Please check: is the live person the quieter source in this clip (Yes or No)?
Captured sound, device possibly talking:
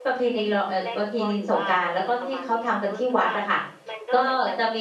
No